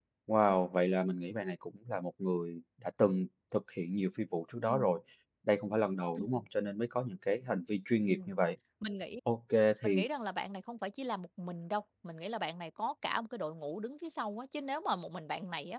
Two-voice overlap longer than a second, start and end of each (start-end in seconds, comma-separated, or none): none